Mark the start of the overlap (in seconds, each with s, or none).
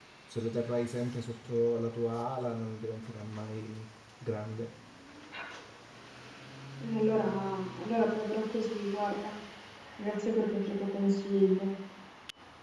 none